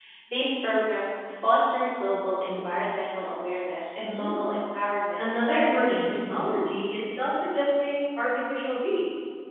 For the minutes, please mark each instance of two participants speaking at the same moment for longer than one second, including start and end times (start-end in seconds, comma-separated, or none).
5.2-6.5